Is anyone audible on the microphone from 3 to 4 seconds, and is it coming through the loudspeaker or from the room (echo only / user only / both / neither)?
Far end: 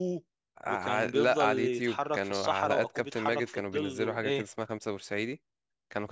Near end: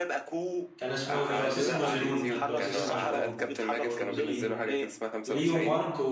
both